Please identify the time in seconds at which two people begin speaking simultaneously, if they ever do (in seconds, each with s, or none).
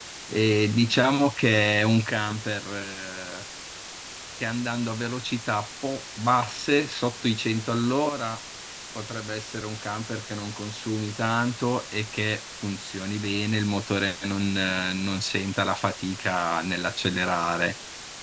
none